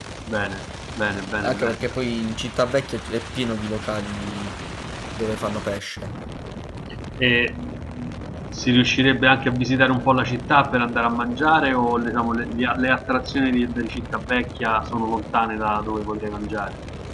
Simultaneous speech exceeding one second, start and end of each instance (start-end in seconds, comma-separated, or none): none